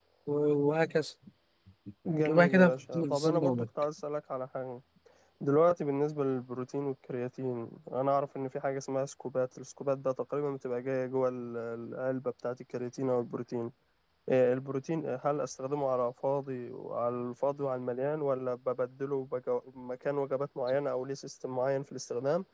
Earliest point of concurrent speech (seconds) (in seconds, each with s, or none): 2.3 s